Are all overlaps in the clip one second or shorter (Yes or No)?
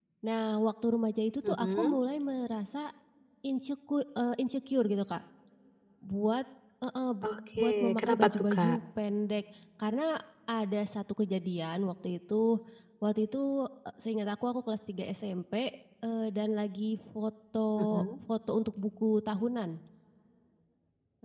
No